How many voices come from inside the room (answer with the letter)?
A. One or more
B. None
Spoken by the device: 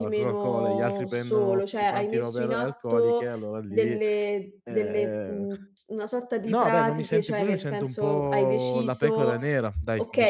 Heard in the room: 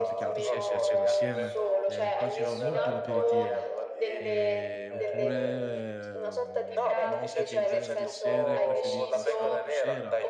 A